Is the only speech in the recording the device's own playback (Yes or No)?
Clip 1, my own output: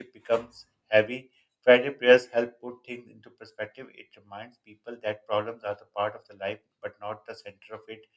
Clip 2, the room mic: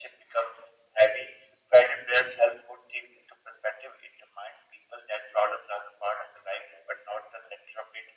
Yes